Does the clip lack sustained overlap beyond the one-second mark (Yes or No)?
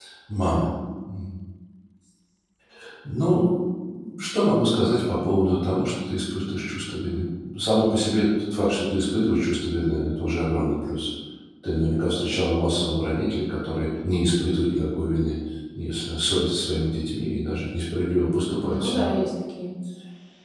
Yes